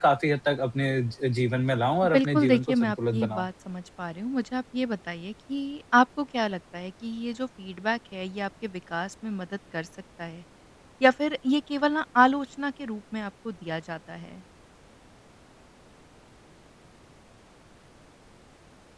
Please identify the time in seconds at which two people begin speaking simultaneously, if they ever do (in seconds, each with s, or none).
2.0 s